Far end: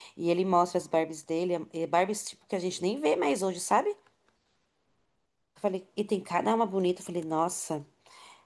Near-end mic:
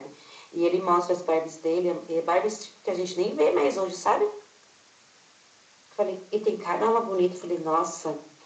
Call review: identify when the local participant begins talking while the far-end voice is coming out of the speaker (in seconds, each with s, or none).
none